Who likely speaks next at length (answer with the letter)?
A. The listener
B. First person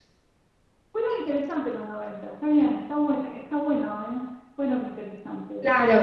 A